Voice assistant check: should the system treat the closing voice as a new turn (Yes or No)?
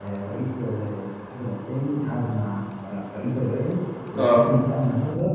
No